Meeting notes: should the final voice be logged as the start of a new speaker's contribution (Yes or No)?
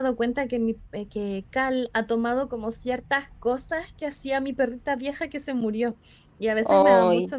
No